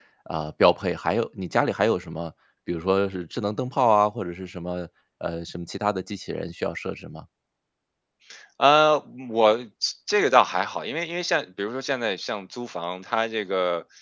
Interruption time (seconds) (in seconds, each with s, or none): none